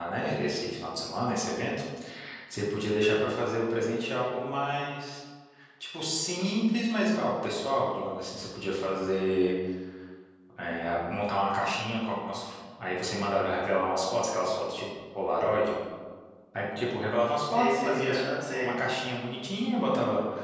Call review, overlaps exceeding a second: present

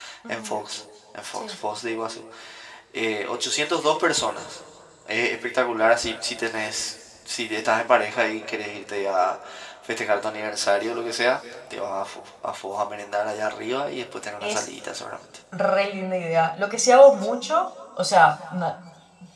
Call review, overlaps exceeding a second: none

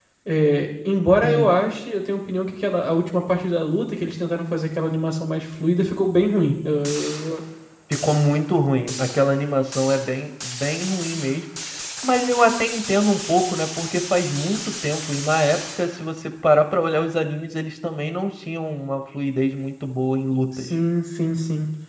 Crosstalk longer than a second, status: none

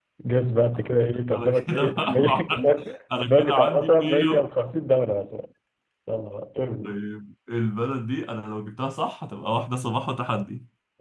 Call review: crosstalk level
present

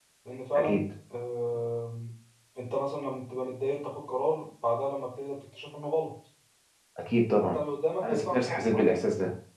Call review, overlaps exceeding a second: present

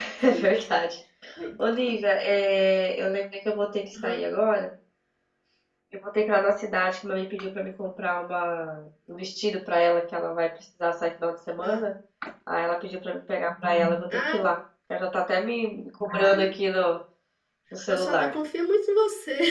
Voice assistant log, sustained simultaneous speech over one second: none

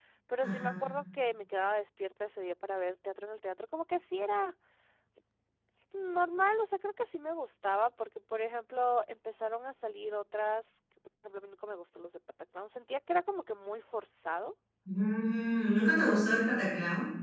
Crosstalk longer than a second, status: none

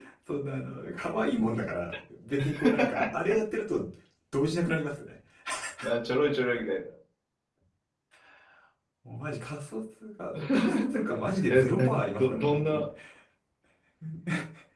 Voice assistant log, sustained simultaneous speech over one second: present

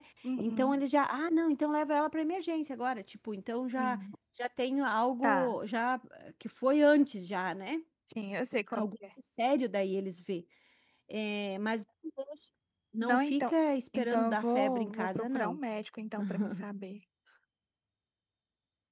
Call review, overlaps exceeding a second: present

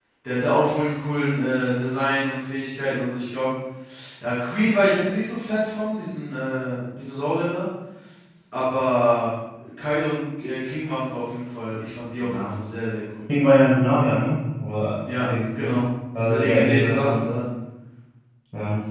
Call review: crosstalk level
present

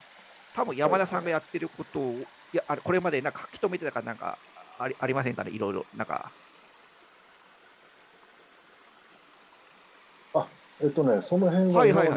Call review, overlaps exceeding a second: none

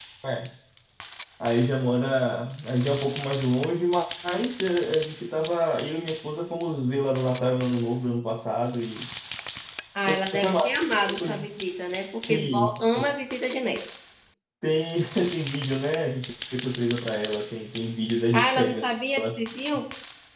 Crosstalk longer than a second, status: present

